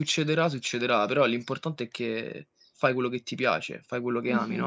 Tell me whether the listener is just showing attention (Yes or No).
No